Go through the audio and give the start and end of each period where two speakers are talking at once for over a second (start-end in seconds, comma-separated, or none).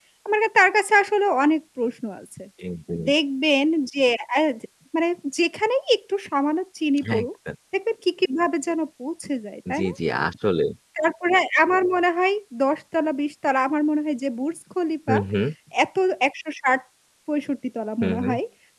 none